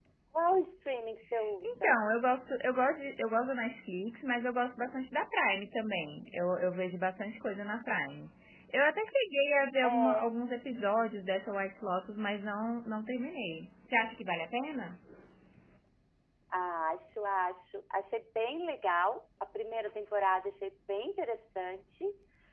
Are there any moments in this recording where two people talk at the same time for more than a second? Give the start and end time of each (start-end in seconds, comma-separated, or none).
none